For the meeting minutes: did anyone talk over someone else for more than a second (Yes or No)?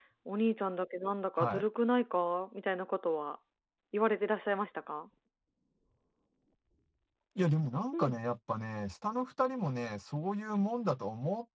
No